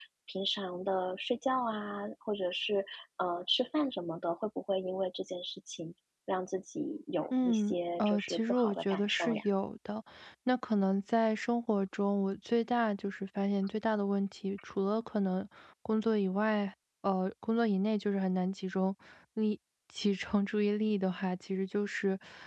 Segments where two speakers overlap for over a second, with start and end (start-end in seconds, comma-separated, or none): 7.4-9.4